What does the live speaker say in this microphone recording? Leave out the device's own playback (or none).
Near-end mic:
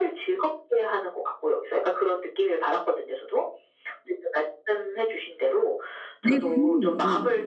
네. 부모님 어.